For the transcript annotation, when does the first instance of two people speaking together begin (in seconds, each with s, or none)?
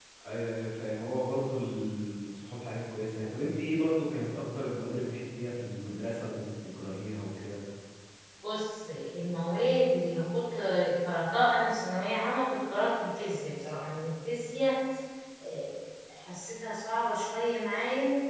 none